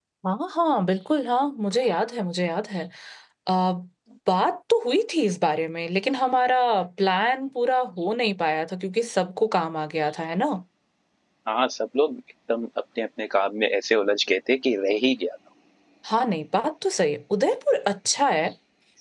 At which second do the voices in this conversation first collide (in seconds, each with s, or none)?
none